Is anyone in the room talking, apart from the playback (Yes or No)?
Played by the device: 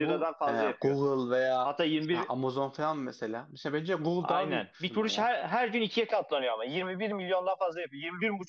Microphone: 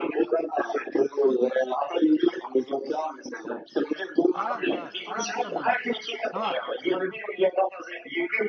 Yes